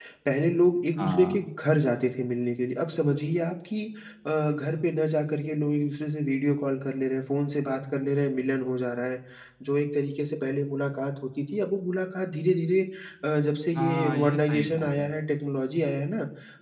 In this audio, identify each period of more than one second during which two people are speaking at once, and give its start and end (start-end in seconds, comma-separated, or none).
13.8-15.1